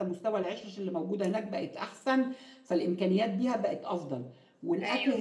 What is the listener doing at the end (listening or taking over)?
listening